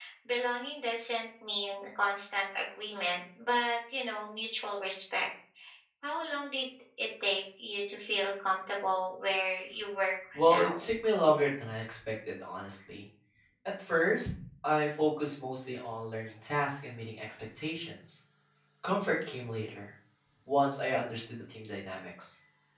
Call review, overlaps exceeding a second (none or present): none